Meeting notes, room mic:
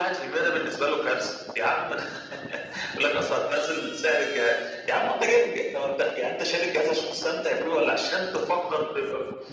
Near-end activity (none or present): none